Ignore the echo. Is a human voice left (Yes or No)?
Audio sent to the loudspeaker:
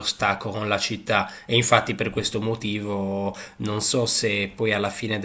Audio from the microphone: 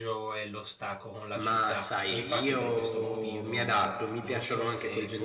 Yes